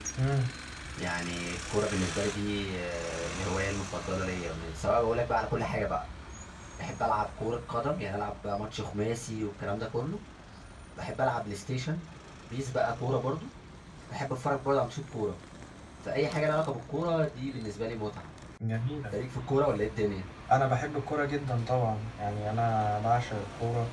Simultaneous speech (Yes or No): No